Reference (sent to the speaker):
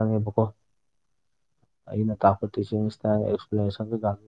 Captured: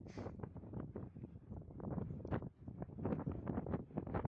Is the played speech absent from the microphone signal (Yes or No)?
Yes